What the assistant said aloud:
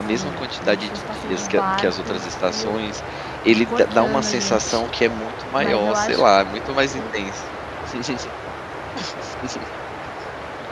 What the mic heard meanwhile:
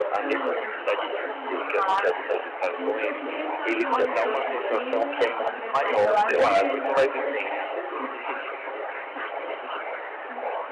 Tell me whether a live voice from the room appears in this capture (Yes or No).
Yes